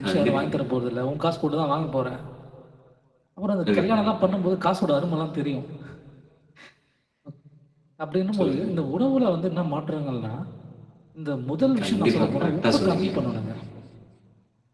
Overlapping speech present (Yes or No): Yes